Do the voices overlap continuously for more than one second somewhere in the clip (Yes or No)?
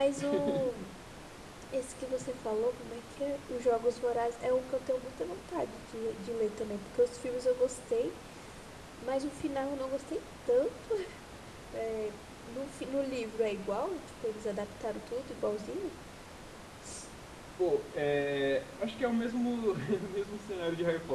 No